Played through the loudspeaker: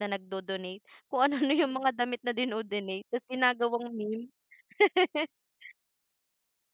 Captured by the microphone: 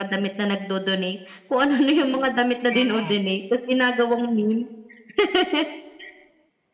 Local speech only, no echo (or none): Mm.